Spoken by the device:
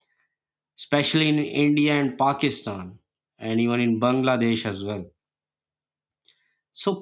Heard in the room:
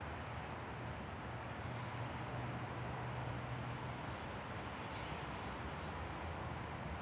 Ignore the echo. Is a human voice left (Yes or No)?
No